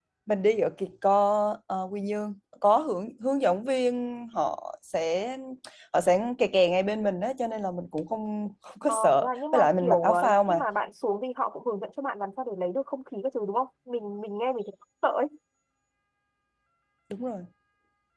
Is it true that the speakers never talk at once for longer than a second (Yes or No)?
No